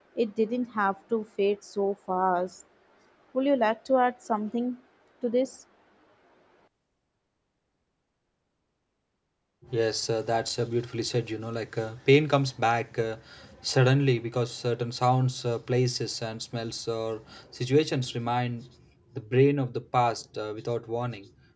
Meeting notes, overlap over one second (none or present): none